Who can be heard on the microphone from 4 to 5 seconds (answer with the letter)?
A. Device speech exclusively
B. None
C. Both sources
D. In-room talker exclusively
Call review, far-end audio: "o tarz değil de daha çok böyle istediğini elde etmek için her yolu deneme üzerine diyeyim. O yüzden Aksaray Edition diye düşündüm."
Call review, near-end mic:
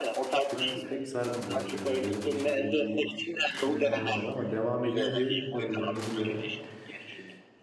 C